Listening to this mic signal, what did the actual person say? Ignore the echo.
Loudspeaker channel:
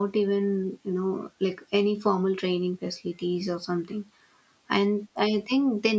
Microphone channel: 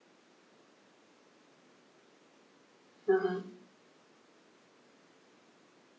Uh-huh.

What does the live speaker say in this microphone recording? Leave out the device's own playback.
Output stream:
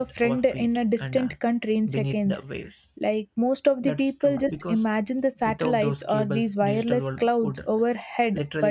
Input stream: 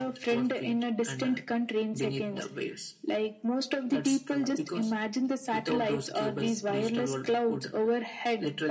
none

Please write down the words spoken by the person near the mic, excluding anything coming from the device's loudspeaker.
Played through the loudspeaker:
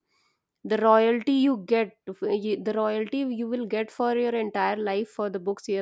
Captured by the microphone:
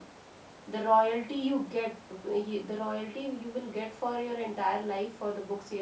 none

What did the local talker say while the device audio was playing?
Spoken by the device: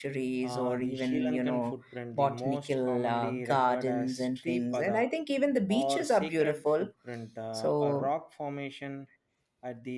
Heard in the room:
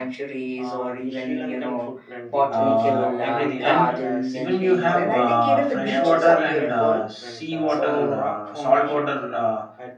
uh, everything and even you have uh, freshwater and uh, seawater uh, saltwater uh,

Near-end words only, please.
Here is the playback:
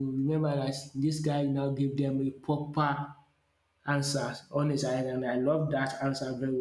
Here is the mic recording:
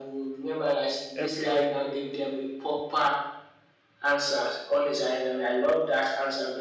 everywhere

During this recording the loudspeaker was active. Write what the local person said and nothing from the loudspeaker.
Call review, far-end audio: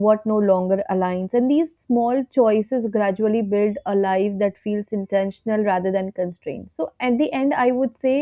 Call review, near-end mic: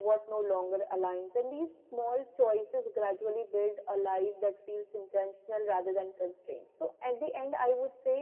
none

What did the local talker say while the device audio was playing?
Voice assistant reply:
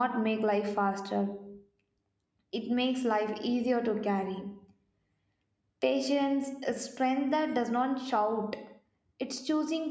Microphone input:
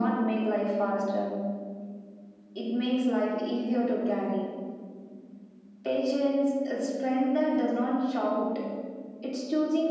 none

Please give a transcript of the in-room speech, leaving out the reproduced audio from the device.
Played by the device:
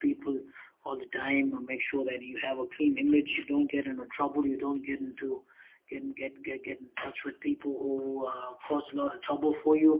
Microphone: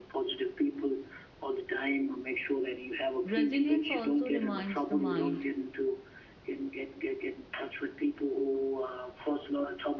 resilience also reminds the mind

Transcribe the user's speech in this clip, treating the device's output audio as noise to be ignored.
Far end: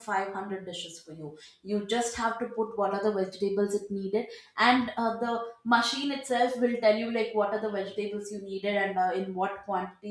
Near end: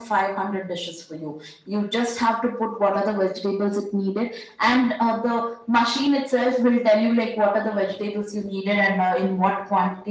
none

